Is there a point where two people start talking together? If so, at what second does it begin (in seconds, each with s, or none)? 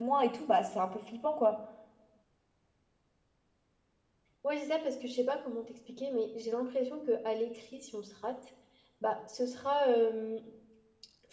none